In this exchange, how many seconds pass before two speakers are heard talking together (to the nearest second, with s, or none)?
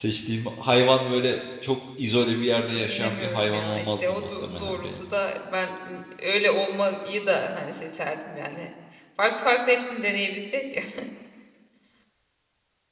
3 s